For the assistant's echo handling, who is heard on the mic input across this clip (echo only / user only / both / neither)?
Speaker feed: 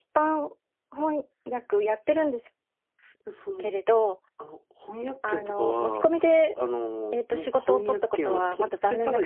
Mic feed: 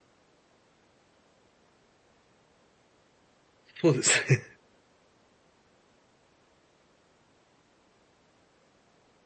user only